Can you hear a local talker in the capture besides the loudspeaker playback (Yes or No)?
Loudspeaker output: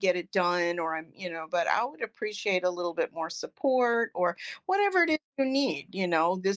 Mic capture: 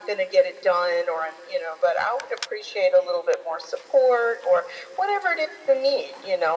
No